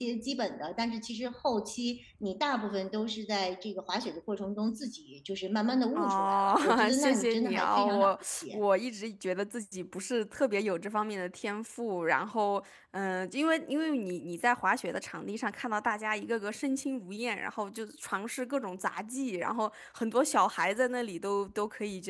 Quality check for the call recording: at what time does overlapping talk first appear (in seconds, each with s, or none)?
6.0 s